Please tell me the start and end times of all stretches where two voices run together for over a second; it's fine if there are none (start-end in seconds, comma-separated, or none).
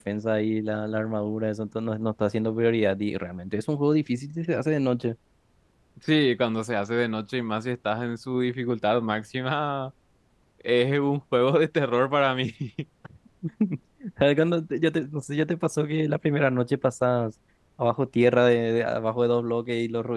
none